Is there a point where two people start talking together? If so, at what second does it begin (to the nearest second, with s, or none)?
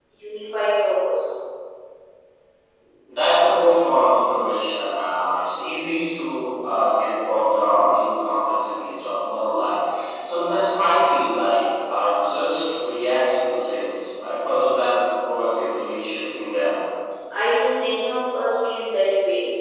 none